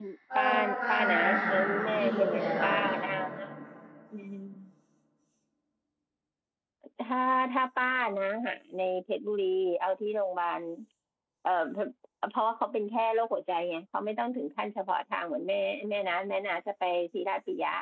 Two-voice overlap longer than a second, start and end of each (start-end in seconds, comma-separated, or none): 0.9-2.7